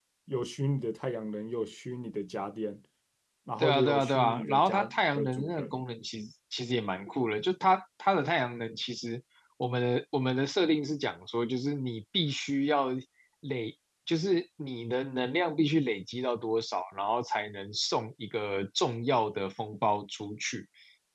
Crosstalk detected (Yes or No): Yes